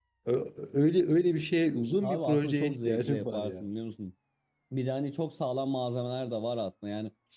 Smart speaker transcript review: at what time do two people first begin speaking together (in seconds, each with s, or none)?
2.0 s